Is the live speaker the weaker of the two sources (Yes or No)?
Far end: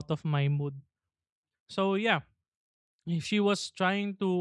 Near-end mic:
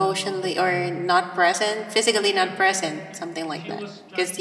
No